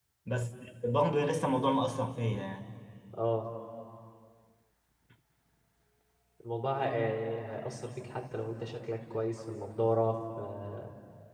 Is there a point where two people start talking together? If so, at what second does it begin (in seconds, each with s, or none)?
none